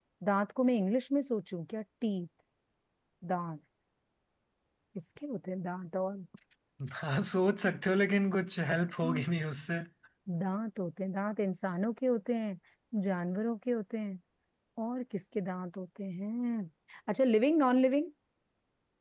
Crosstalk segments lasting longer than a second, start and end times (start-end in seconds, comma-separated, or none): none